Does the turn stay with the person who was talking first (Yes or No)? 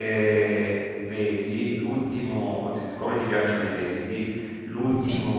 Yes